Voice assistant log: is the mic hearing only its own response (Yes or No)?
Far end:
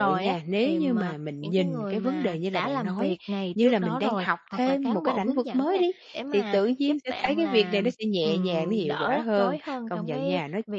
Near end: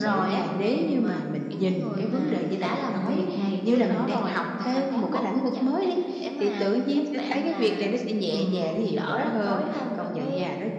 Yes